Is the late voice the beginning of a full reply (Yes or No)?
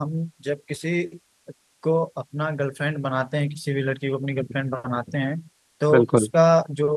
No